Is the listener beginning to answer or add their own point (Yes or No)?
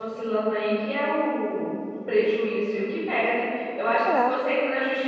No